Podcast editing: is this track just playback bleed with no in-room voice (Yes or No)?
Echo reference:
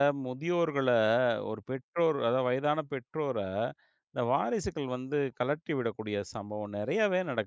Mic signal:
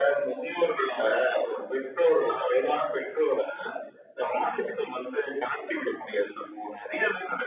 Yes